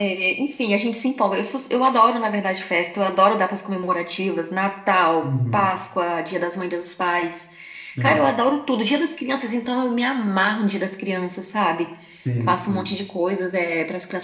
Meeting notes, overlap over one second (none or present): none